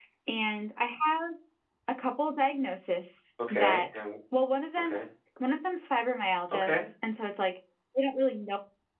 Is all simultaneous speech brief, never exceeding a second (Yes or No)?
Yes